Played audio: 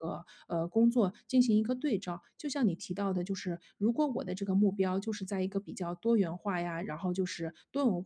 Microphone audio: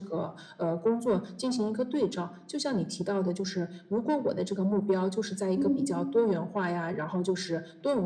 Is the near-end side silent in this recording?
No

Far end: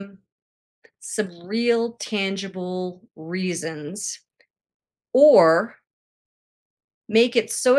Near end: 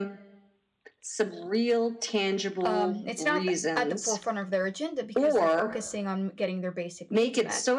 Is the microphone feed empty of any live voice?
No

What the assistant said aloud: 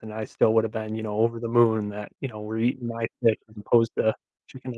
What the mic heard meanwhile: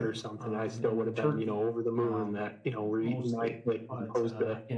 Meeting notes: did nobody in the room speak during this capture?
No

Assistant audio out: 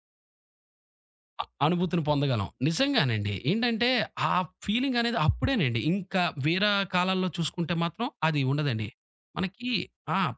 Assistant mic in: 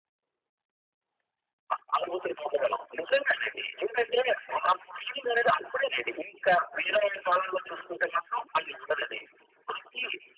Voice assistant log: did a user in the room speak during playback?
No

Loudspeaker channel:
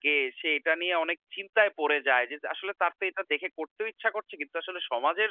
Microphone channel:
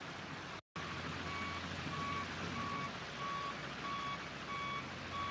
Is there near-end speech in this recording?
No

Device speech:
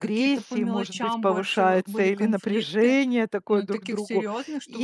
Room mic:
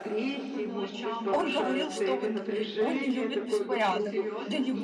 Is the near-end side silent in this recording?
No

